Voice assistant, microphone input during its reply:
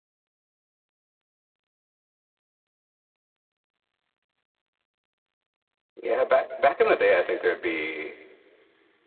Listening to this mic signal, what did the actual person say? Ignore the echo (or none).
Yeah, back back in the day, I think there'd be